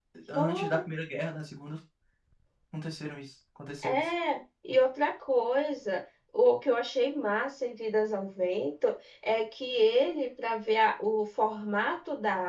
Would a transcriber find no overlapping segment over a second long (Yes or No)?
Yes